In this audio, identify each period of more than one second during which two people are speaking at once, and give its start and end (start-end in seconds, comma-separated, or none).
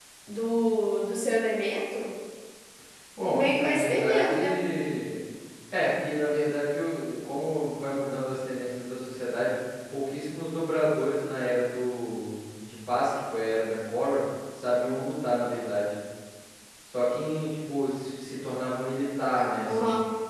3.3-4.6